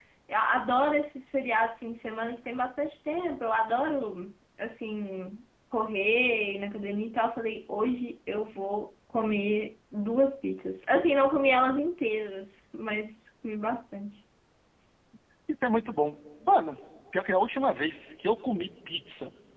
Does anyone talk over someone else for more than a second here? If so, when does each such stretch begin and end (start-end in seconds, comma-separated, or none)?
none